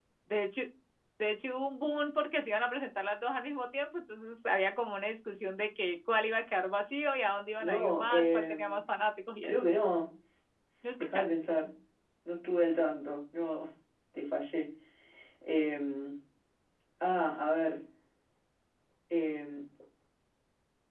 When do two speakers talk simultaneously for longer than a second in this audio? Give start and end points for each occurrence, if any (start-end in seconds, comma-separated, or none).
7.6-8.8